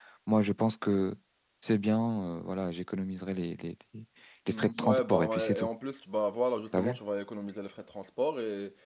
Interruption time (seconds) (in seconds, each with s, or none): 4.5 s